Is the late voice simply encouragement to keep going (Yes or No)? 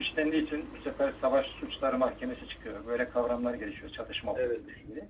Yes